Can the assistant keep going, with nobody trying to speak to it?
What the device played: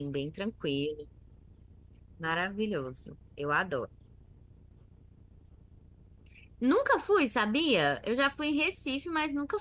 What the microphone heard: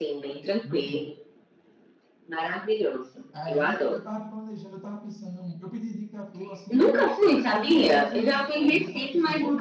No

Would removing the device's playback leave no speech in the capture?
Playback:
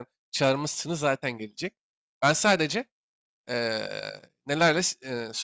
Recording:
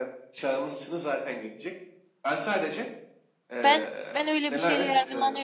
No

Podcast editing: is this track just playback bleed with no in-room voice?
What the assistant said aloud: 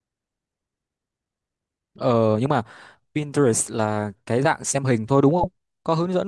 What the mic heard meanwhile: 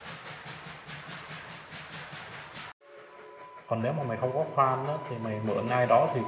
No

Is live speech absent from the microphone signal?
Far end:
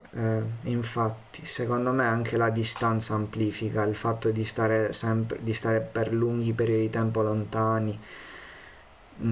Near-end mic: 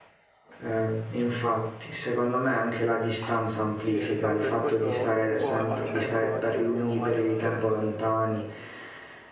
No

